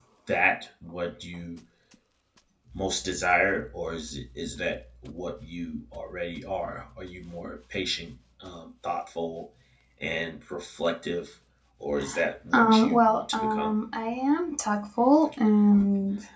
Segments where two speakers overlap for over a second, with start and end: 12.5-13.7

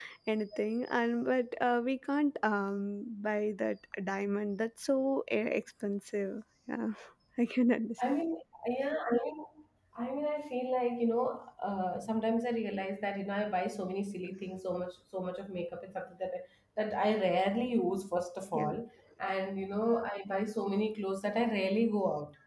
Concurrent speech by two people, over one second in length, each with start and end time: none

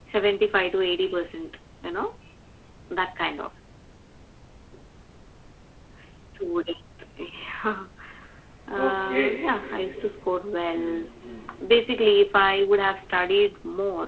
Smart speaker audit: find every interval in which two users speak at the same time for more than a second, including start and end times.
8.8-10.1

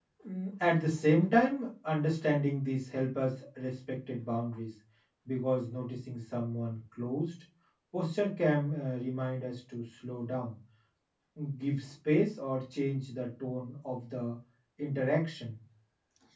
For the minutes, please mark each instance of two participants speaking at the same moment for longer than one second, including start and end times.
none

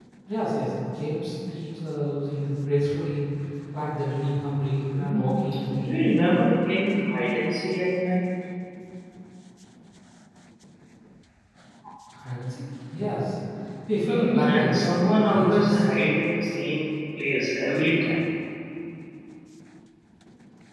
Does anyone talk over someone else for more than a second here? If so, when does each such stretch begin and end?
14.1-15.8

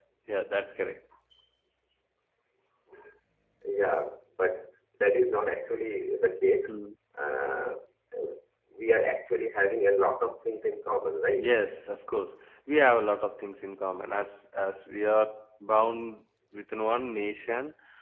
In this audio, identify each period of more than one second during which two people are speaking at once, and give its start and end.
none

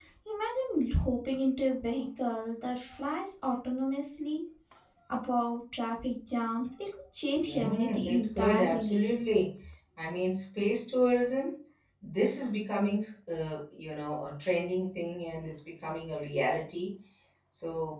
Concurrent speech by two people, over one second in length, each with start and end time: 7.5-9.2

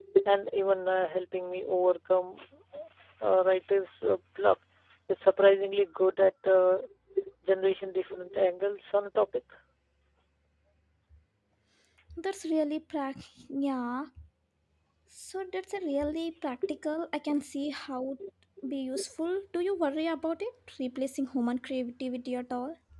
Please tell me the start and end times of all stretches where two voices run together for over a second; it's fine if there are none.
none

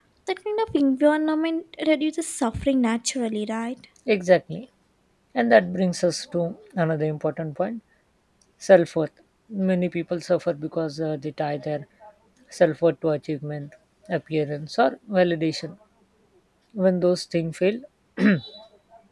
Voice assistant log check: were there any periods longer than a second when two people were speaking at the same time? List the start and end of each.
none

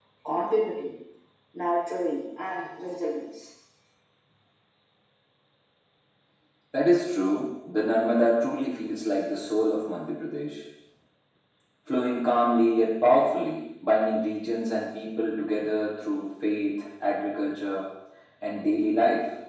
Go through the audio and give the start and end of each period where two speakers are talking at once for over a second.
none

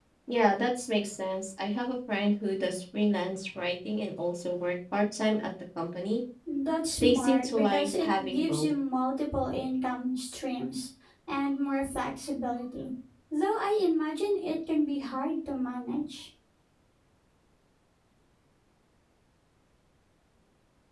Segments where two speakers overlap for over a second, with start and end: 7.0-8.7

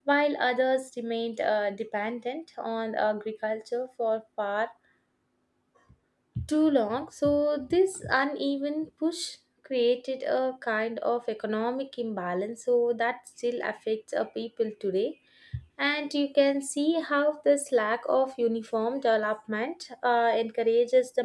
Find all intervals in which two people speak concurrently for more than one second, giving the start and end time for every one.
none

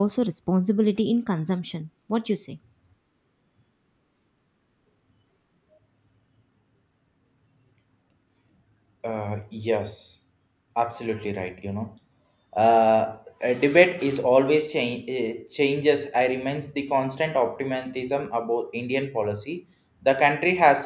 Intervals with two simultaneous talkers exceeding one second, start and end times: none

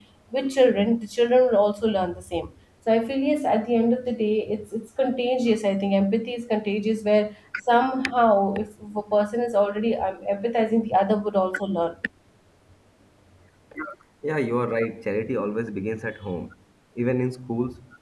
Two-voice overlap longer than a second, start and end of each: none

